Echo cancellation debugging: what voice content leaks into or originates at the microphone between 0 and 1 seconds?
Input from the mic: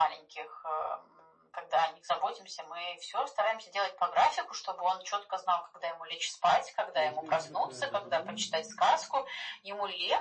echo only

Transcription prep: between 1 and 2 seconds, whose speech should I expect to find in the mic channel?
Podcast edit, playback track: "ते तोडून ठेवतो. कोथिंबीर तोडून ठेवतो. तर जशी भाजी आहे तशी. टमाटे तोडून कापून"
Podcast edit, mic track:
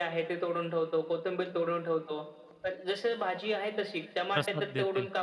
echo only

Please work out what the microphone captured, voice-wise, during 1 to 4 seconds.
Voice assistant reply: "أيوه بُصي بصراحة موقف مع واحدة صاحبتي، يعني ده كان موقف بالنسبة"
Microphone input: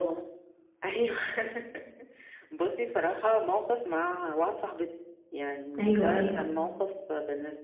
echo only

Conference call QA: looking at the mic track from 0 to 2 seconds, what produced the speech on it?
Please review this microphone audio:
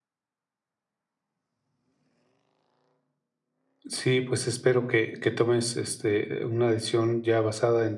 neither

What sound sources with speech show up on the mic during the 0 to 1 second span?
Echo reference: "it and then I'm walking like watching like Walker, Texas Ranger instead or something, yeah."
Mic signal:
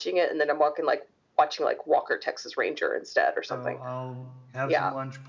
echo only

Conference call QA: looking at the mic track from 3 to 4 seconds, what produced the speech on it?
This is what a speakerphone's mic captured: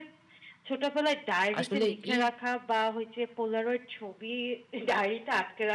echo only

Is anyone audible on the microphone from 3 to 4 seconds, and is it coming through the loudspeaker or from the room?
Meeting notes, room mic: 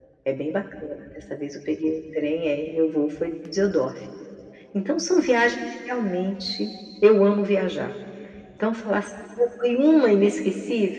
echo only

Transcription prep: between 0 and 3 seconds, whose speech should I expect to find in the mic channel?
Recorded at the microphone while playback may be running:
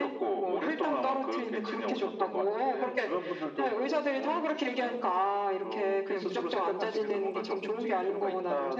echo only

